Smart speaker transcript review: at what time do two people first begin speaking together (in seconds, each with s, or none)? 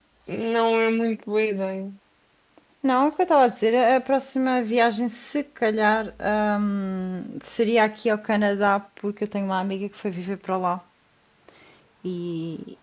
none